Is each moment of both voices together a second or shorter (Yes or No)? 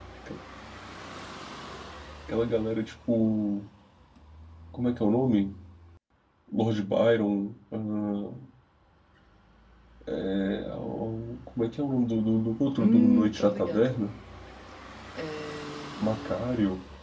No